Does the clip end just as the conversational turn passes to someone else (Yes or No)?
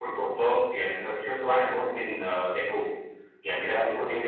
No